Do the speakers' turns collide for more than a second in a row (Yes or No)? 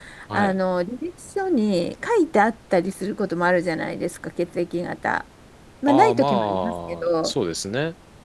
Yes